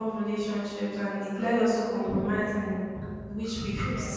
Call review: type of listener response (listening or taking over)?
listening